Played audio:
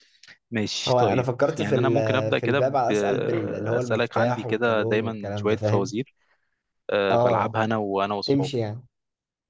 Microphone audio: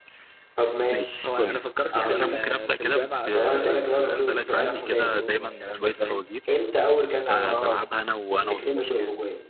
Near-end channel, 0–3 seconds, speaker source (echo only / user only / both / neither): both